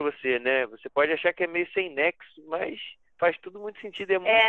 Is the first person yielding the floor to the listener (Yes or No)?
Yes